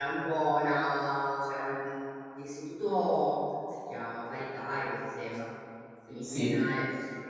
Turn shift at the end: No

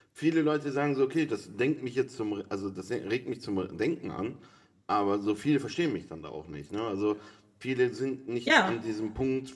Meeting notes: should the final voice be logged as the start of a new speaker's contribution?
No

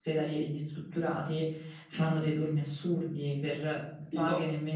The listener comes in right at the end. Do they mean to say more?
No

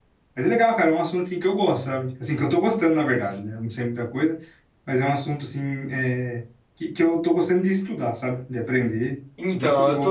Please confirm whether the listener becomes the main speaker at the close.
Yes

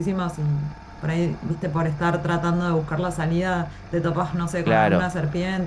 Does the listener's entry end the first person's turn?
No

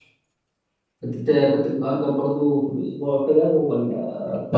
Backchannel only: No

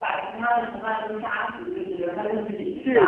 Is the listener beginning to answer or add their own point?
Yes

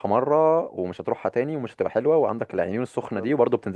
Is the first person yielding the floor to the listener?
No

